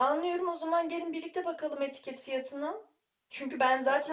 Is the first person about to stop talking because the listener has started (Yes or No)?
No